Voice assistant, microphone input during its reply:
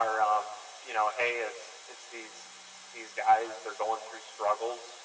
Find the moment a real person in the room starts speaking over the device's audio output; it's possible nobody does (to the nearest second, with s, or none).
none